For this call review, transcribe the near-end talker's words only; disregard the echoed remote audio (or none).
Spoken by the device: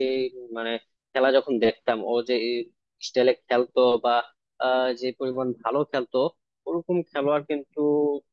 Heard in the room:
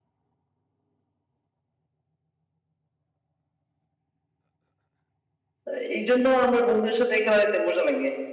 আহ, এই জন্য আমার বন্ধুদের সাথে খেলা দেখতে মজা লাগে